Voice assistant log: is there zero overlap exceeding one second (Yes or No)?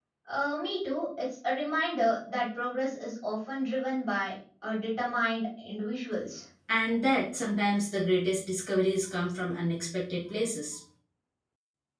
Yes